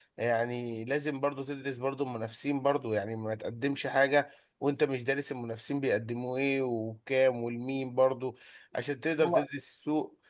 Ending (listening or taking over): listening